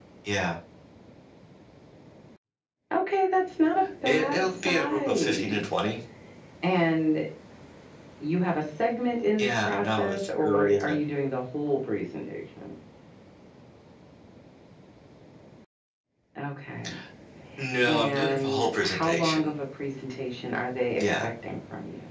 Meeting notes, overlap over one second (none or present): present